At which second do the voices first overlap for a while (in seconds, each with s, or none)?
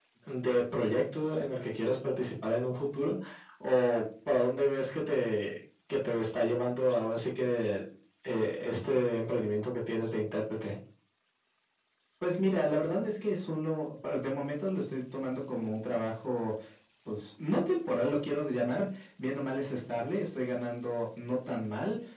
none